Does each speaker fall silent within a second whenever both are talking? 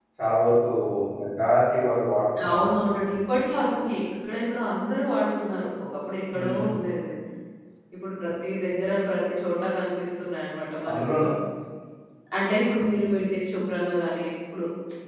Yes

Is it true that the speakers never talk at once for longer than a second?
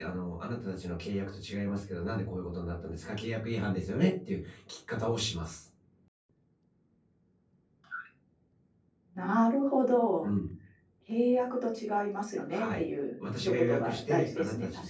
No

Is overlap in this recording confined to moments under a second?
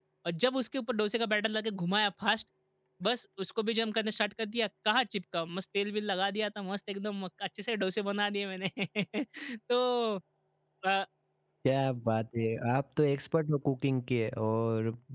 Yes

